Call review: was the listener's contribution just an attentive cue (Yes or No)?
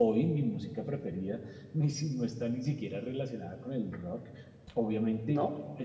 Yes